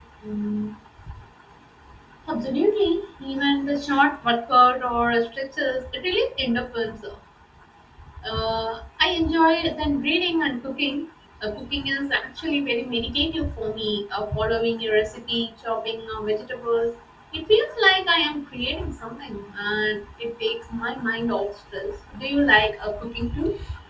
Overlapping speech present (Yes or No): No